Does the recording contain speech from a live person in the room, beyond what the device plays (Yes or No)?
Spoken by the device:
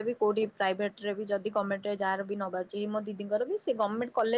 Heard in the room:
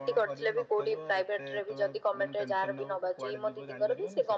Yes